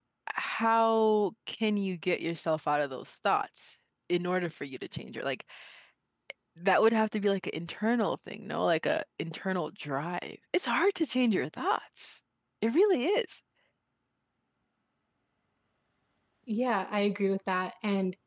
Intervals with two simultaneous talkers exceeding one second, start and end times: none

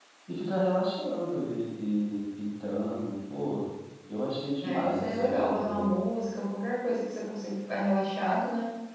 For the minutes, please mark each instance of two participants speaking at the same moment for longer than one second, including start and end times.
4.6-5.9

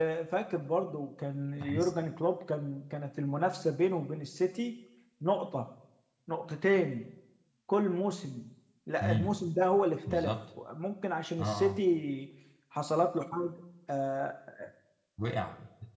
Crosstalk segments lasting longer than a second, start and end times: none

